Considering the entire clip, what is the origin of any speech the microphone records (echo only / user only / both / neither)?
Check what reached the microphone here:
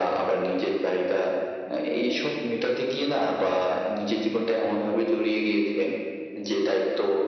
echo only